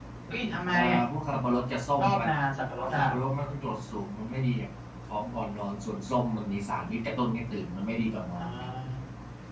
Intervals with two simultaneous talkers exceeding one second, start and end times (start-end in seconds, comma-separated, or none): none